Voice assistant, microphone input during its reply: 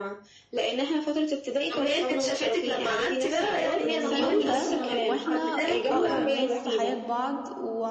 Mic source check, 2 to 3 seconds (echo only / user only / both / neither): echo only